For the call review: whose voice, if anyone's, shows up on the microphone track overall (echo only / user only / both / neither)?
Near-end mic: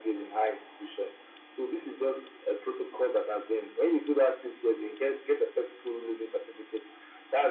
echo only